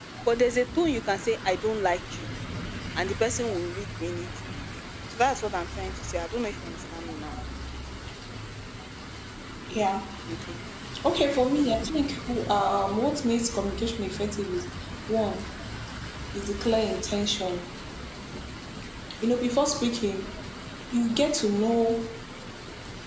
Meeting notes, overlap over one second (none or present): none